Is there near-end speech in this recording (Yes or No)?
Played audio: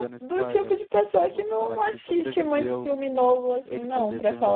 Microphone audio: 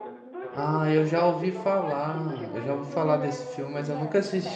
Yes